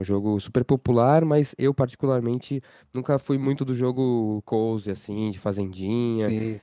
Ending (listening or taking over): listening